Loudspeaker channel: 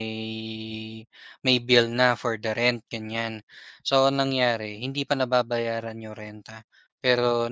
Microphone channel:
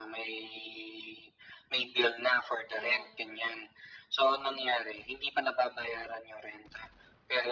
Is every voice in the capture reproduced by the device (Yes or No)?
No